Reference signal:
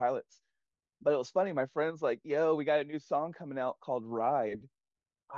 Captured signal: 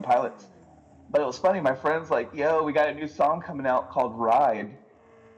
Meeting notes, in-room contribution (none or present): none